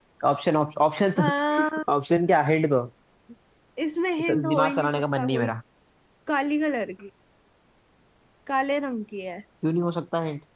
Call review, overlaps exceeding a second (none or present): present